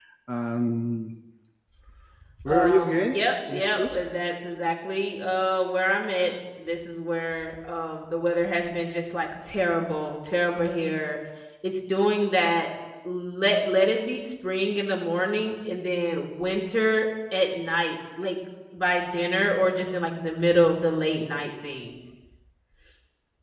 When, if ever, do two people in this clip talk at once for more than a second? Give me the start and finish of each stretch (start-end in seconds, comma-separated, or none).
2.5-4.0